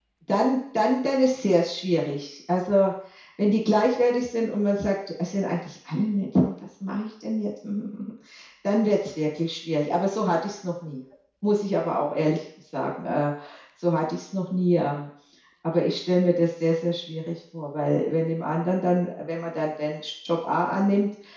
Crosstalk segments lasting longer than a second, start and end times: none

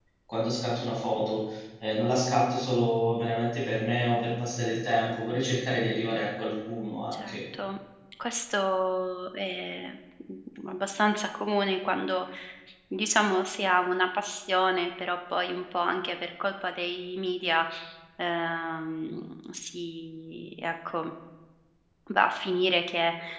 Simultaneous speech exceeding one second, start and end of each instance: none

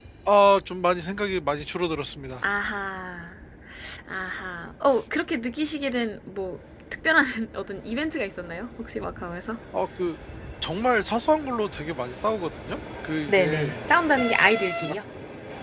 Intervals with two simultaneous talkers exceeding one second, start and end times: none

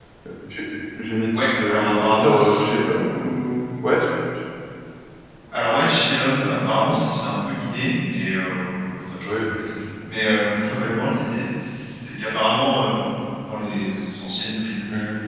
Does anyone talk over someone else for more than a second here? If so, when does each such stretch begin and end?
1.3-2.7

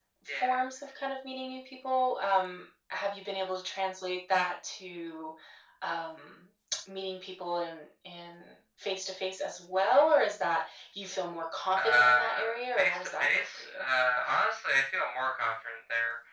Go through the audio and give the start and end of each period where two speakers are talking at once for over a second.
11.8-13.9

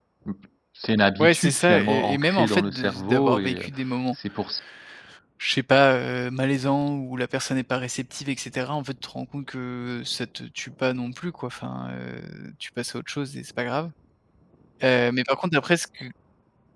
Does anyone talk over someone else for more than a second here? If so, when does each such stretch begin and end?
1.2-3.7

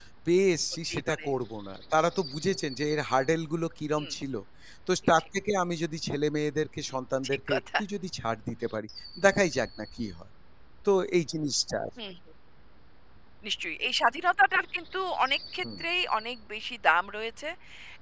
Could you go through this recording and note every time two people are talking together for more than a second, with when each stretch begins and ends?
none

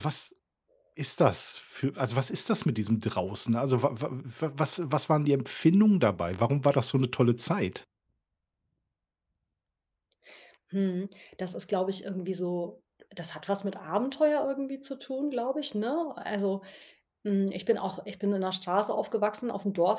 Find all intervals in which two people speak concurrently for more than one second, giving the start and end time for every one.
none

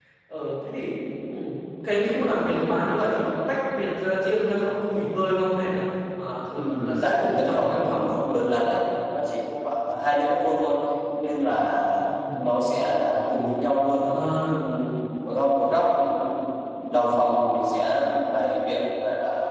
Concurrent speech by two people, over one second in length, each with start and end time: 6.6-8.1

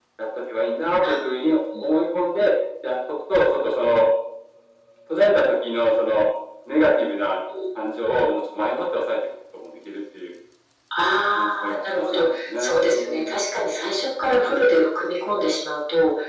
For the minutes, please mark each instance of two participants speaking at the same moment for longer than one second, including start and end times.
11.4-13.4

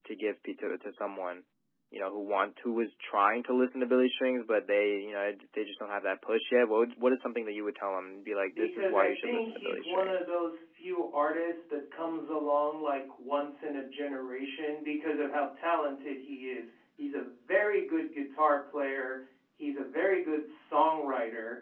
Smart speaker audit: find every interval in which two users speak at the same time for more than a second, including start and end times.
8.5-10.3

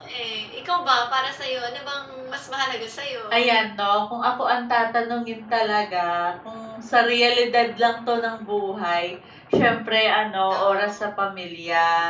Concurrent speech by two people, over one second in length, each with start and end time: none

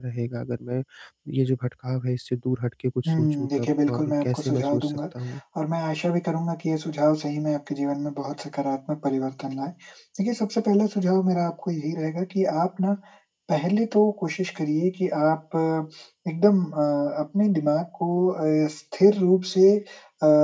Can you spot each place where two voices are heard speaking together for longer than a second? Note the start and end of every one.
3.1-5.0

